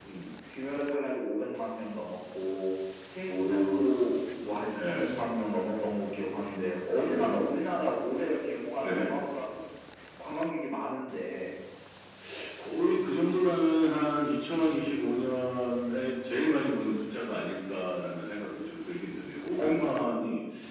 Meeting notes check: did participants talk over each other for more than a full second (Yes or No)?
No